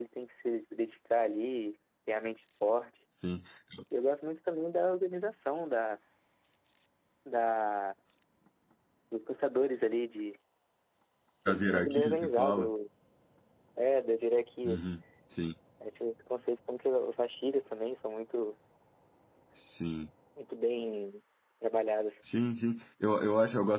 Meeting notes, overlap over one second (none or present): present